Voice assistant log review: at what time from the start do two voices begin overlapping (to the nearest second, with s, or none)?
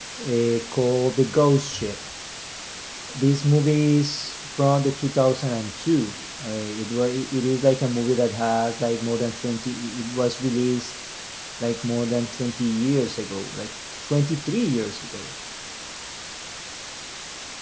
none